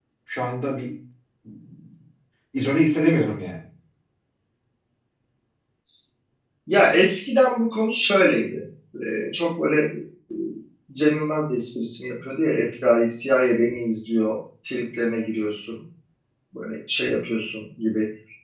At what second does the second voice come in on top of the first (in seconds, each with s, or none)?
none